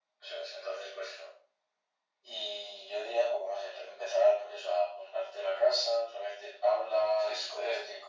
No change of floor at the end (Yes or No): No